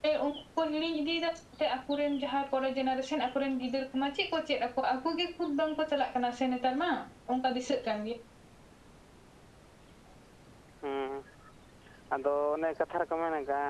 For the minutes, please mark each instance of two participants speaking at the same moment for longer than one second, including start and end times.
none

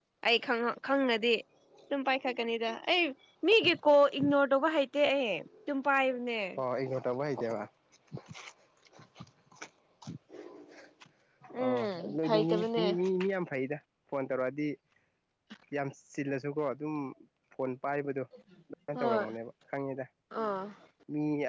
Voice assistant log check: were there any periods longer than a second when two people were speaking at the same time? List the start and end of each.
11.6-12.8

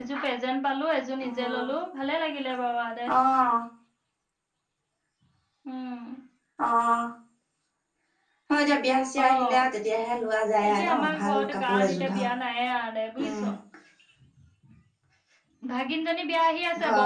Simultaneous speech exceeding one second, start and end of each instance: 10.7-12.2

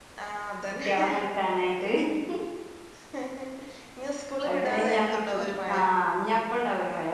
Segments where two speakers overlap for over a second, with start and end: 4.5-5.8

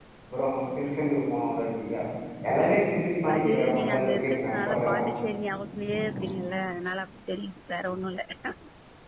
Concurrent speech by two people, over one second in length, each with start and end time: 3.4-5.0

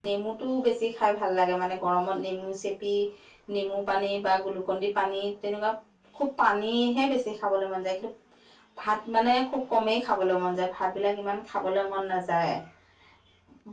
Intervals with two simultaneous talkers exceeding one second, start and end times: none

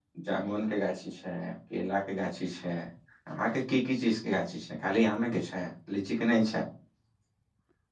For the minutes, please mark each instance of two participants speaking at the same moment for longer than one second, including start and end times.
none

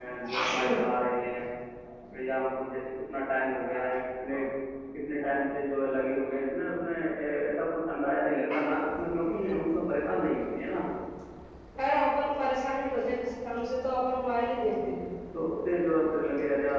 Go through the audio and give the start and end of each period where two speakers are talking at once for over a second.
none

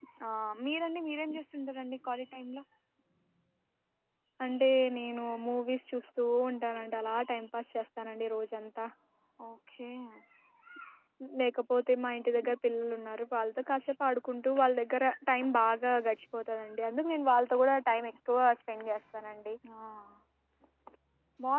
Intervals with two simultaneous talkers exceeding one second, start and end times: none

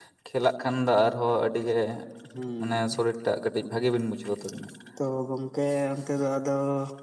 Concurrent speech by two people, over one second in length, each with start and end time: none

